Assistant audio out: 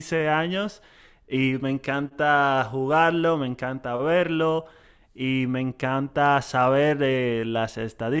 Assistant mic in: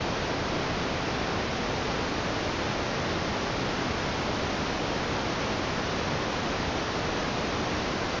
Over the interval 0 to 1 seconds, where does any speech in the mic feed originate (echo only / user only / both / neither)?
neither